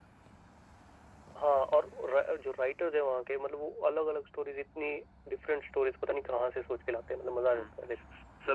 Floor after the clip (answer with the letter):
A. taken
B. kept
A